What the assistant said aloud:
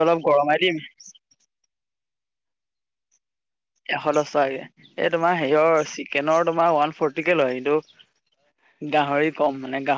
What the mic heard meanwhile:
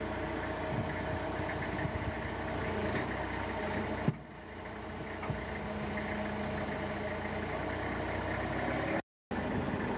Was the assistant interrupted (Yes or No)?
No